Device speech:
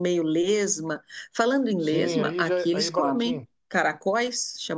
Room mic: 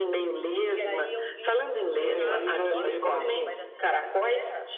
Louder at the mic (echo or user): echo